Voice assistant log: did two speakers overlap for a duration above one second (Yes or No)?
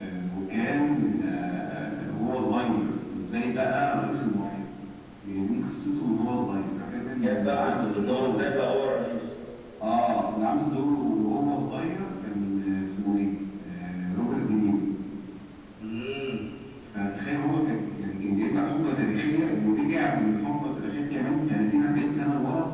Yes